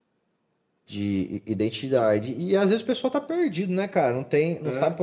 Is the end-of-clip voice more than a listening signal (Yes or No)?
No